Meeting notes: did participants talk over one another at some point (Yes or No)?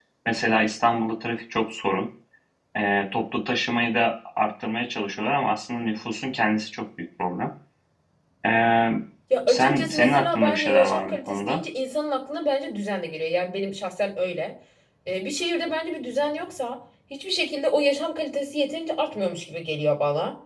Yes